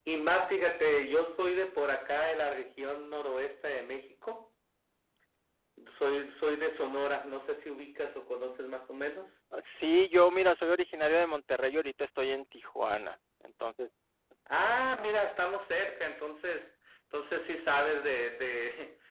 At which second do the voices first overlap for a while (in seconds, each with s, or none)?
none